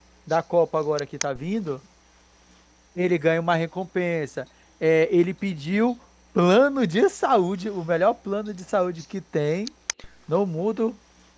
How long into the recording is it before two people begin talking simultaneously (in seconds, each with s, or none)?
none